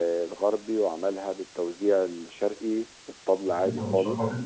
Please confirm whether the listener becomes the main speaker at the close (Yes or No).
Yes